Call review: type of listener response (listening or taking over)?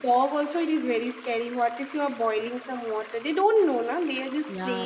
taking over